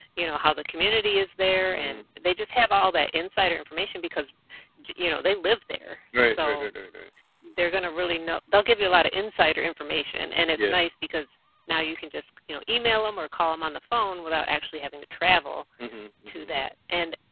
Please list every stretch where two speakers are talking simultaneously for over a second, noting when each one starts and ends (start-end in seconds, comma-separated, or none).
none